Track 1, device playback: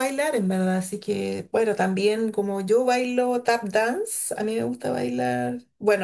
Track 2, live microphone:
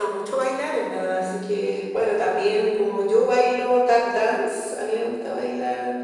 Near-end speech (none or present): none